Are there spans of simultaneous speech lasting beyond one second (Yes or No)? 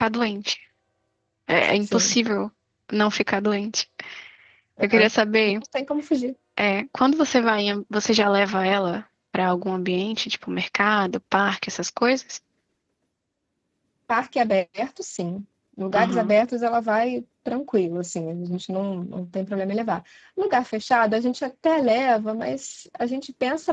No